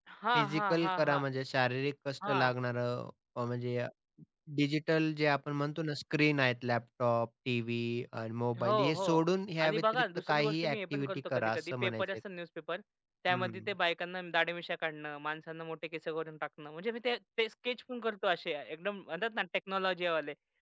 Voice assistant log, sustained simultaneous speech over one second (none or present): present